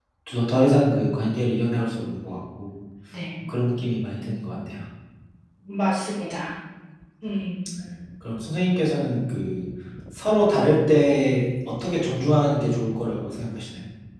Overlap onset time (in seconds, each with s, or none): none